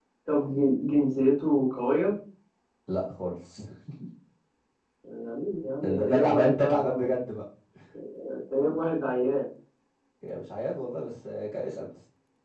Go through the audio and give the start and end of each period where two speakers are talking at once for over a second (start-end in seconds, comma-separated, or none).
5.8-7.1